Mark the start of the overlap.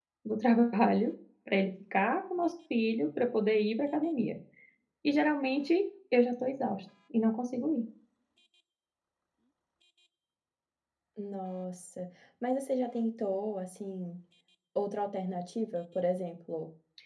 none

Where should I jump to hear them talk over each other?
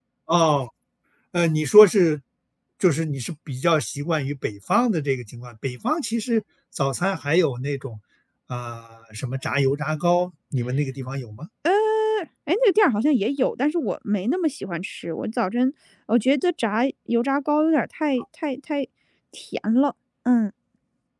none

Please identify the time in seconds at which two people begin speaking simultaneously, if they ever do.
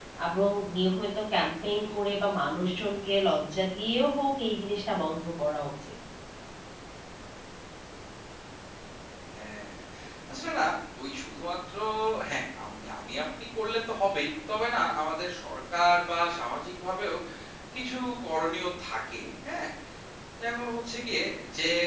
none

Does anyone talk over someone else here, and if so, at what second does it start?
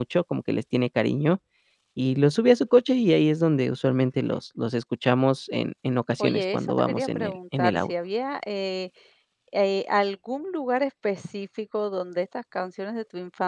6 s

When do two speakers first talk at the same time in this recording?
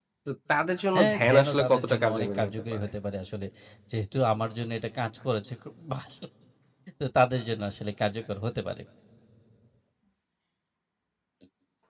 1 s

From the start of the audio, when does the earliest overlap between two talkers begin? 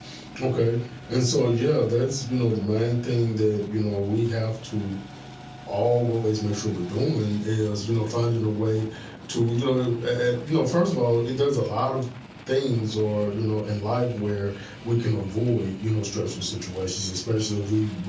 none

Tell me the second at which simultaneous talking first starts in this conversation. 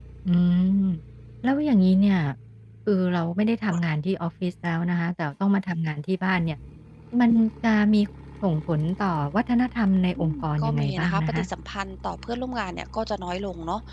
10 s

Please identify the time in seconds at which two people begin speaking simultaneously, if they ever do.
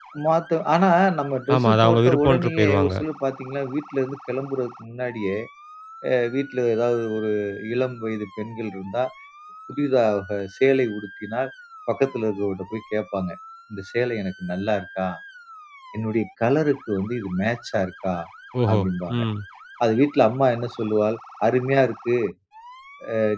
1 s

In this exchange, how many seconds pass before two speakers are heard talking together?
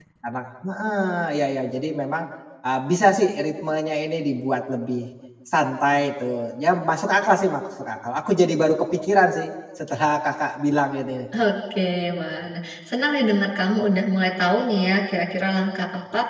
none

